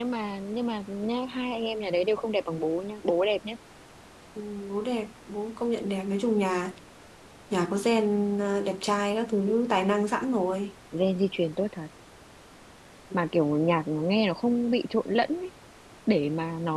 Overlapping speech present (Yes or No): No